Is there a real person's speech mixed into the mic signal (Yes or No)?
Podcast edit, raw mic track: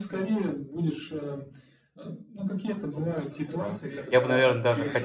Yes